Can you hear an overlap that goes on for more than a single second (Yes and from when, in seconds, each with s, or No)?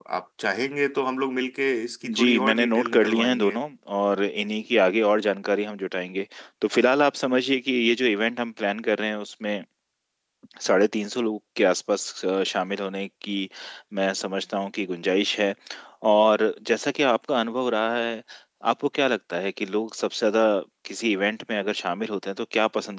Yes, from 2.0 s